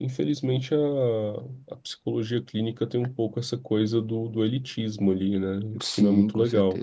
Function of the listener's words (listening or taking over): taking over